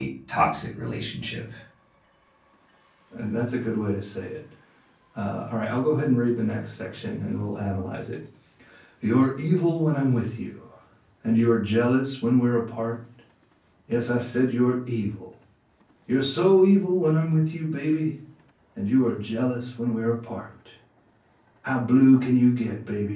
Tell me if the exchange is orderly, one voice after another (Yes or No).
Yes